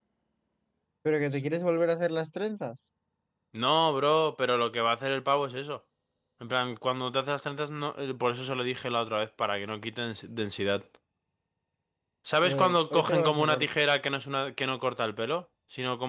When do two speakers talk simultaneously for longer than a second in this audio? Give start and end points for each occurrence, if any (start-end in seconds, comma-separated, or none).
12.4-13.6